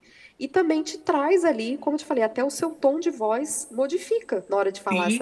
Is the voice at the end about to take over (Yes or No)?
Yes